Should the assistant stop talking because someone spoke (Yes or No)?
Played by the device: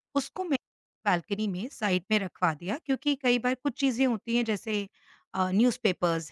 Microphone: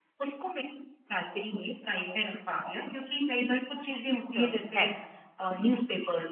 Yes